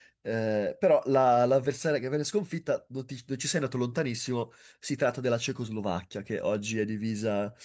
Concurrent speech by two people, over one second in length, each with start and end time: none

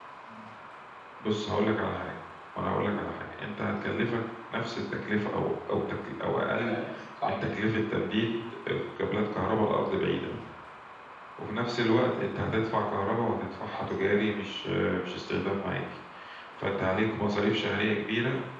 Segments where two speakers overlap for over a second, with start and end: none

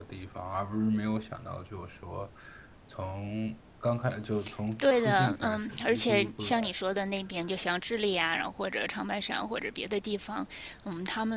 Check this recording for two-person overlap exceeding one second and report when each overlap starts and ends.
4.8-6.7

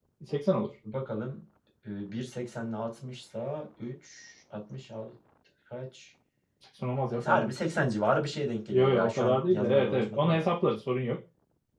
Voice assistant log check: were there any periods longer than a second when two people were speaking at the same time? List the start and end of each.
8.7-10.4

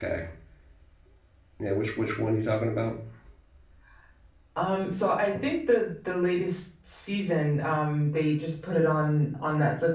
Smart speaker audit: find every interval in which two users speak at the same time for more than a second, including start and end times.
none

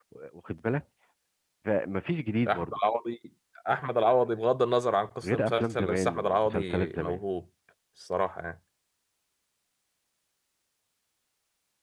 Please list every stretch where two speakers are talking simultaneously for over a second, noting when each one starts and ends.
5.2-7.2

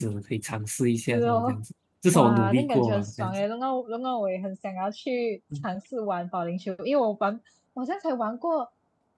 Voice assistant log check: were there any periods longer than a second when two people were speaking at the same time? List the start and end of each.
2.1-3.4

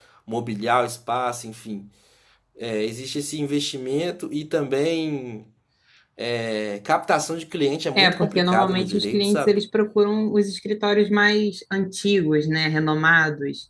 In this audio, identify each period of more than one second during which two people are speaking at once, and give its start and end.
8.0-9.5

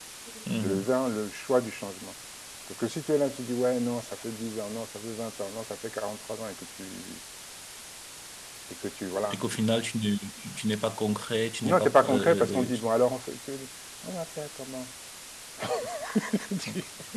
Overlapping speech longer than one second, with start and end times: 11.6-12.9

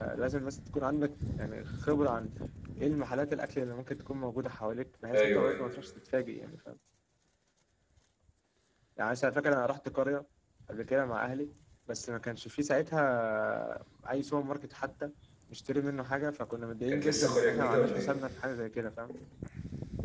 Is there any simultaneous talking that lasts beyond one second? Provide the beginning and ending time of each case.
16.9-18.1

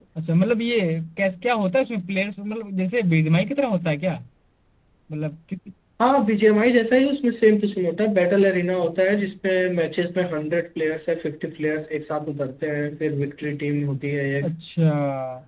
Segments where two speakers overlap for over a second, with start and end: none

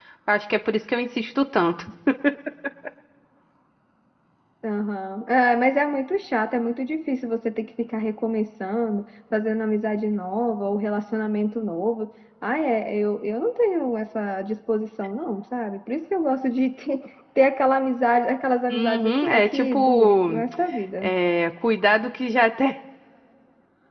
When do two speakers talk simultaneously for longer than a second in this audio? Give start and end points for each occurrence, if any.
18.7-20.2

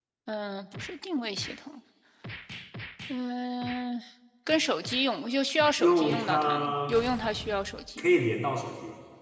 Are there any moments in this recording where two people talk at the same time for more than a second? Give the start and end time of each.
5.8-7.0

